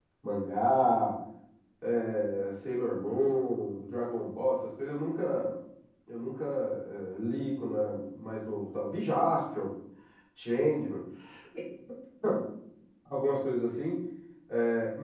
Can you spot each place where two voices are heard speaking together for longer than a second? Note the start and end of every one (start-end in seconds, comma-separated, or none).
none